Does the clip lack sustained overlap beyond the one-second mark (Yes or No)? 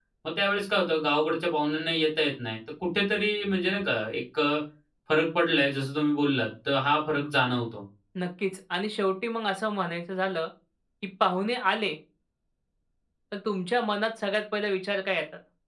Yes